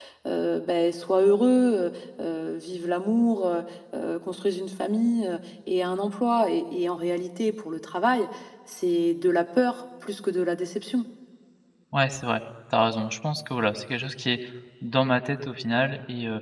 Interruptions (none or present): none